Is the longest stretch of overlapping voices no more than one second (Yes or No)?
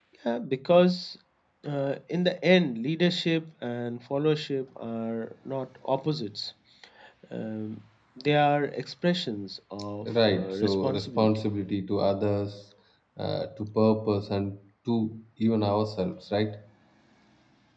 No